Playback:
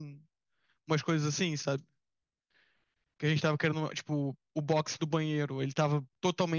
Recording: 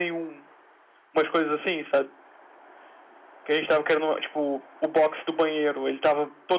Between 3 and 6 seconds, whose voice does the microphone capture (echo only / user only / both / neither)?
echo only